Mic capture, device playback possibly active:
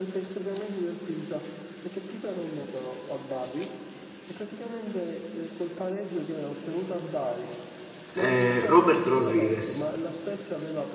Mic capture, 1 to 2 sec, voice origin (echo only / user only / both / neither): echo only